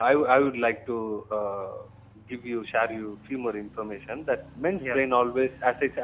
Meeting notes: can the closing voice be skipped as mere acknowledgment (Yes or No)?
Yes